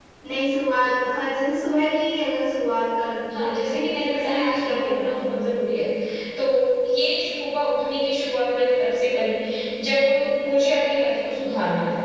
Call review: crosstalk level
present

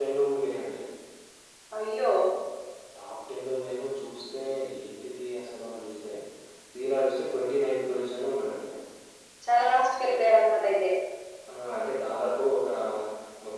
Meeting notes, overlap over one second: none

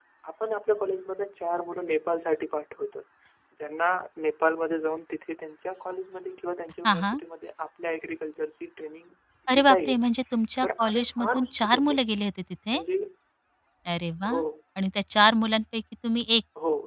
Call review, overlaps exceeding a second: present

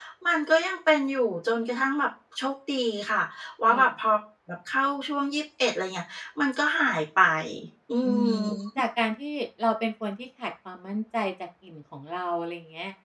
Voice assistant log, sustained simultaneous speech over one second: none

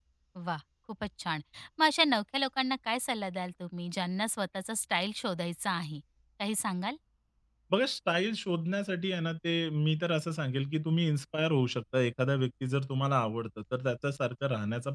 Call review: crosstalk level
none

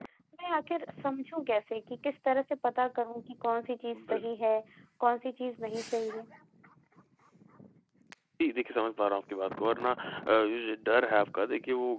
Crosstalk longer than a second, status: none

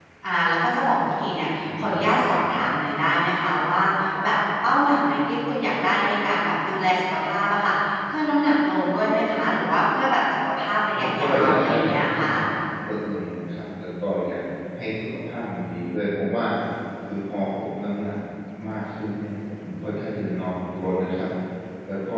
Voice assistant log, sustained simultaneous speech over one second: present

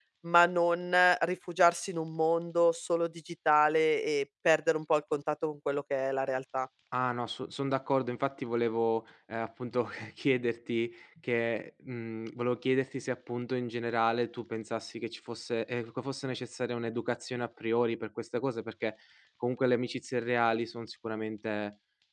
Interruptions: none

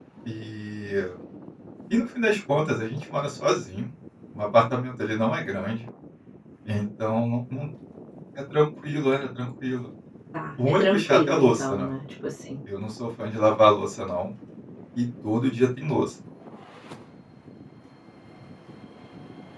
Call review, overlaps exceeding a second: present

